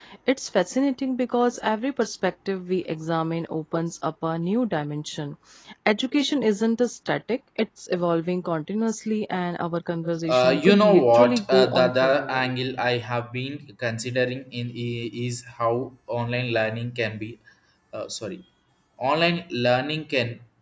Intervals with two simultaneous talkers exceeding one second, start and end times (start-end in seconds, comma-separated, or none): 10.3-12.4